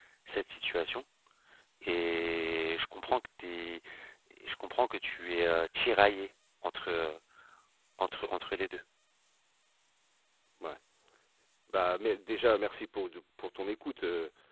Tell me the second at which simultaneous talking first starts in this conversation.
none

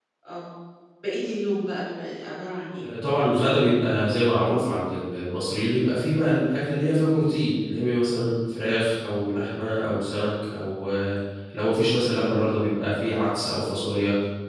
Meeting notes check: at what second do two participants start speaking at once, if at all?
none

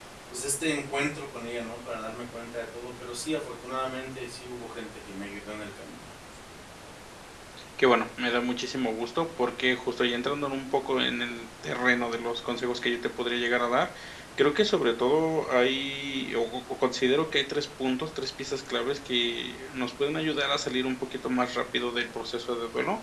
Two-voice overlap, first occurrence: none

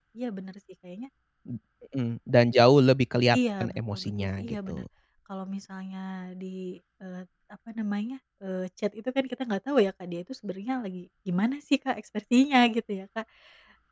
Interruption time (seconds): 3 s

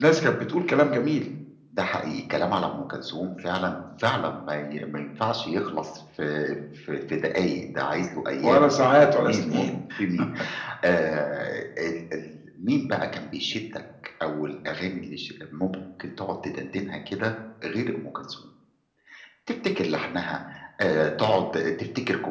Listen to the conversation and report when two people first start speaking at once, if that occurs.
8 s

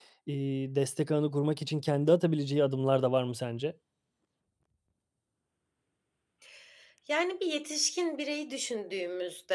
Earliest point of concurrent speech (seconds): none

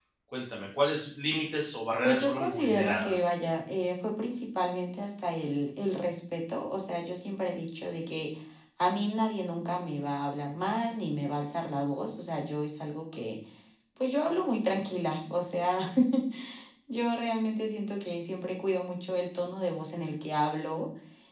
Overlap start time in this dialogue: 2 s

